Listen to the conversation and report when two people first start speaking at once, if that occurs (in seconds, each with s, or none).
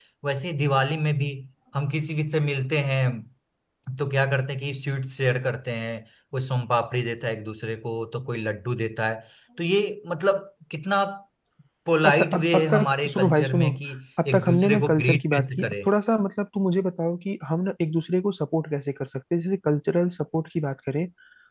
12.0 s